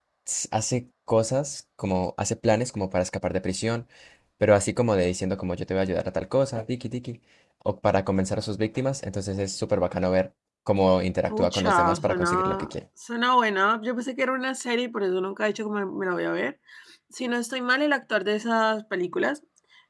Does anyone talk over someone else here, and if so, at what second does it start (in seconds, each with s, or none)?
11.3 s